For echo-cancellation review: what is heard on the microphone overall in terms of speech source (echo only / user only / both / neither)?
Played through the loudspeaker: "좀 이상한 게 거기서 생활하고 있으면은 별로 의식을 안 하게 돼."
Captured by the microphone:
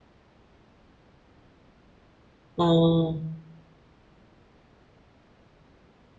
user only